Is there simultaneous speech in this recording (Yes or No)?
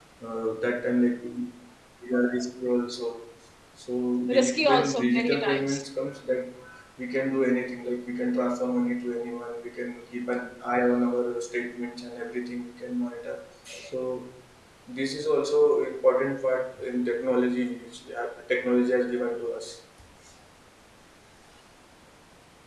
Yes